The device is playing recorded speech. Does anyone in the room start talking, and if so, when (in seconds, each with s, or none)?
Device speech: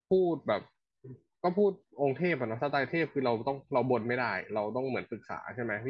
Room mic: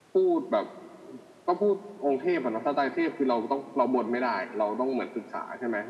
none